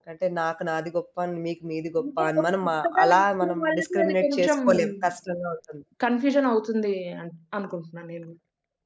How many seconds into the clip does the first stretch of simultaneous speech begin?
2 s

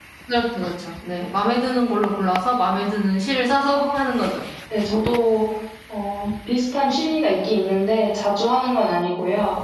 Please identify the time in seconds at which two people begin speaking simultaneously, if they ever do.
none

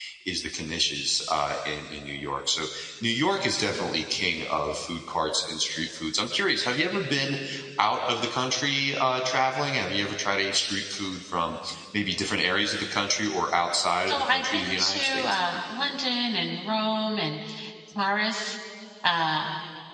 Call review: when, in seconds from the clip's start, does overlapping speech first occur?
14 s

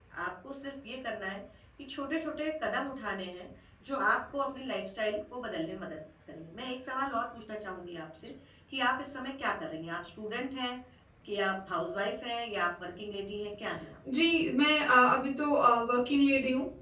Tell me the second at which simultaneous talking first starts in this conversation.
none

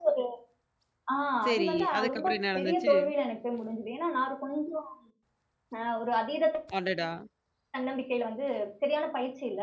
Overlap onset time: 1 s

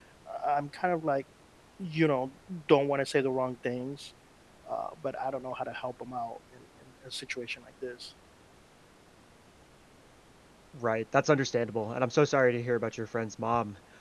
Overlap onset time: none

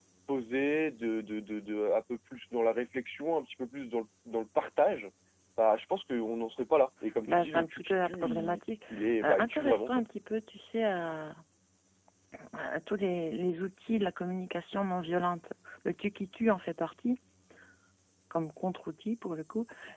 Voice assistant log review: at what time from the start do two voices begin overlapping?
7 s

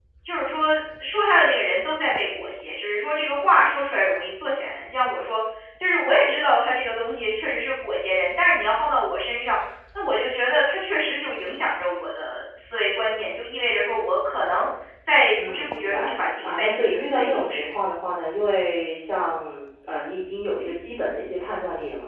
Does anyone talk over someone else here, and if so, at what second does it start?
15 s

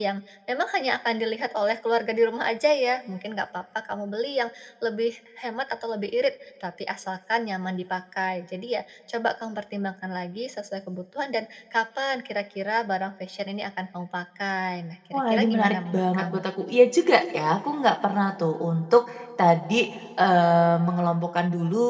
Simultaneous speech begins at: 15 s

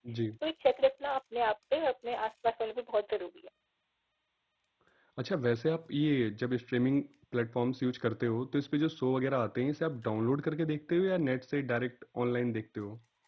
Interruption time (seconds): none

